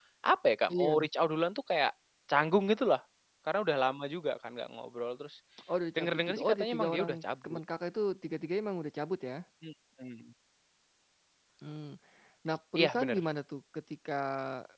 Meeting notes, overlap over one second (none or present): present